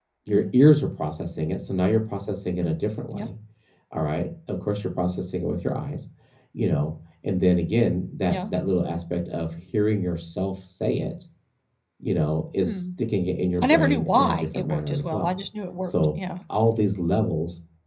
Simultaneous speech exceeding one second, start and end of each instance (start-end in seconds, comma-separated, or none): 13.6-15.3